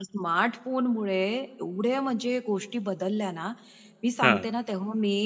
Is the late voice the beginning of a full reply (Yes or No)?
No